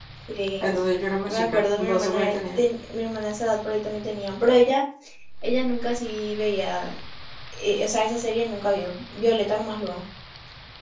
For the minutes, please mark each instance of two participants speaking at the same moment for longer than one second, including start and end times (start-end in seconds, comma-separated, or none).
1.3-2.6